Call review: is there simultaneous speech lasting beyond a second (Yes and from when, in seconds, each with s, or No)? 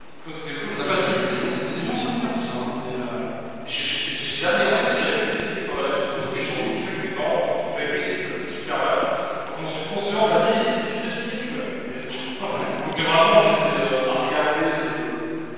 Yes, from 0.6 s